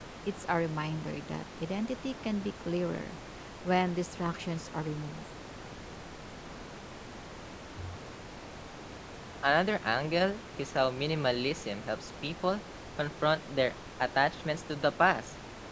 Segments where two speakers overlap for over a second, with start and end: none

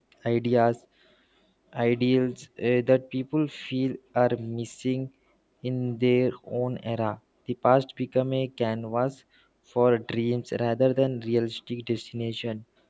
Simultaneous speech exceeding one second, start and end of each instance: none

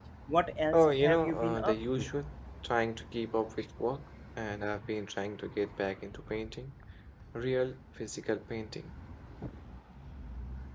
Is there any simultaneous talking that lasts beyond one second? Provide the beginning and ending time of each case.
0.7-2.1

